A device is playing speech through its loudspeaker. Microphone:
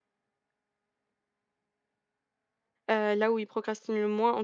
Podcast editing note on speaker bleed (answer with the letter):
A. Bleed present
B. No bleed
B